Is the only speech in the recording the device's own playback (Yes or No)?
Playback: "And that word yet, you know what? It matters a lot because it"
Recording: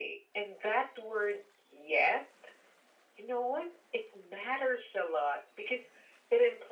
Yes